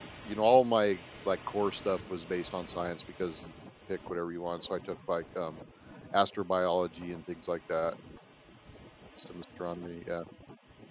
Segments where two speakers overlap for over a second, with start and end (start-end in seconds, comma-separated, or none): none